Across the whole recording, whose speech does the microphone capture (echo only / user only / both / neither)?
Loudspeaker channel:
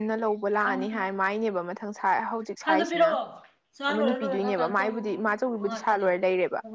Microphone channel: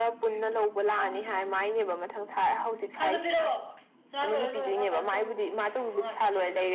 echo only